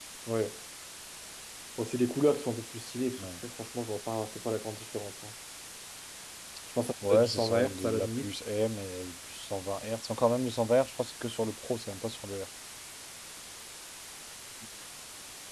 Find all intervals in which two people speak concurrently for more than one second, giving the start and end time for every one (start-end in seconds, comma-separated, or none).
7.0-8.3